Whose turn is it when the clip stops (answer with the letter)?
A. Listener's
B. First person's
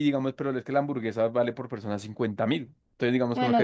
B